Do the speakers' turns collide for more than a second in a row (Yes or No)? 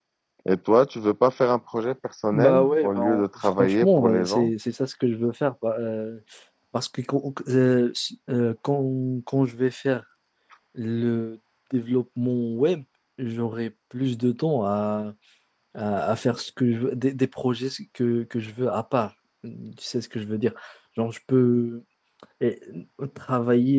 Yes